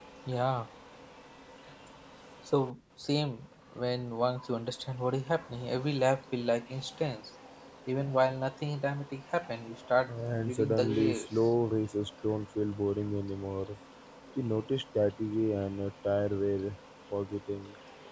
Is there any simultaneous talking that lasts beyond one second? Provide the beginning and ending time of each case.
10.1-11.3

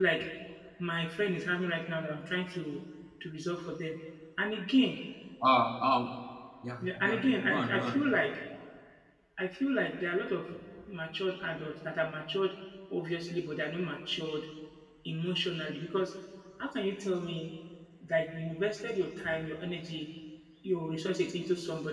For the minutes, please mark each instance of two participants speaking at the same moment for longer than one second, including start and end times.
6.8-8.0

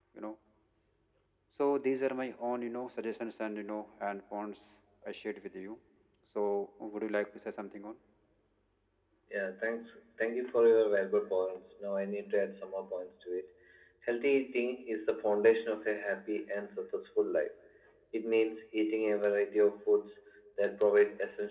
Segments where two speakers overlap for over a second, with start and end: none

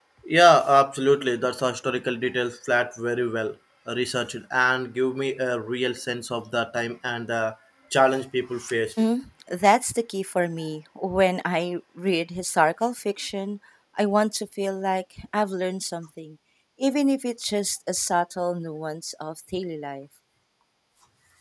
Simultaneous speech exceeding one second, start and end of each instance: none

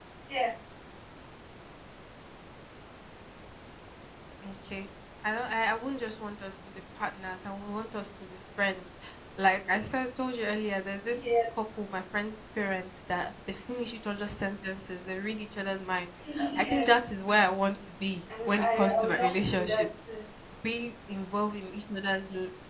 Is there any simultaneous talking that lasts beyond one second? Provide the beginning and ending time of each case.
18.5-19.9

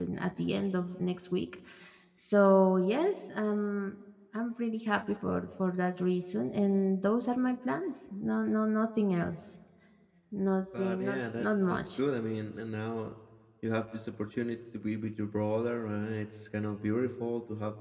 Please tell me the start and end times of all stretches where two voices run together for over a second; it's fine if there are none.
10.8-12.0

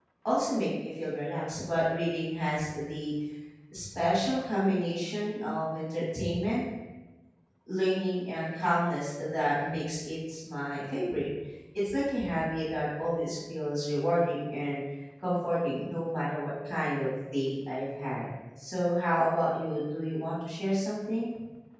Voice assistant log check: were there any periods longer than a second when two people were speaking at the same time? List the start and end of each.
none

